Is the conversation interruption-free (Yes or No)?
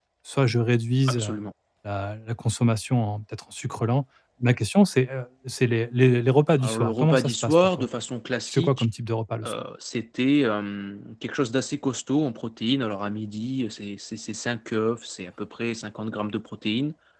No